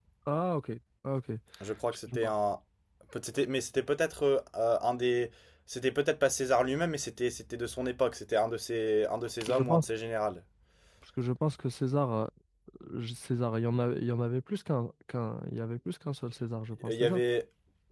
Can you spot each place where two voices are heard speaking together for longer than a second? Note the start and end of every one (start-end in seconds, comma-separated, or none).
none